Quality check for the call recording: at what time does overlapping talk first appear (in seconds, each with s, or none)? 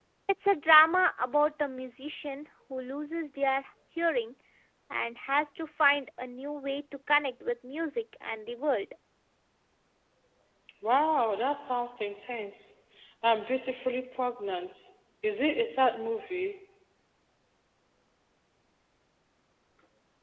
none